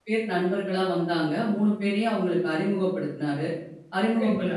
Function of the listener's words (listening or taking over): listening